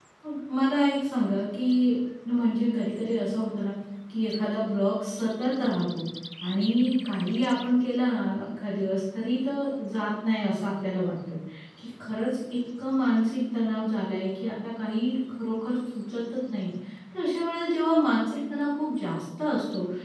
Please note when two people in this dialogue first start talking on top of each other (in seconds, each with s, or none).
none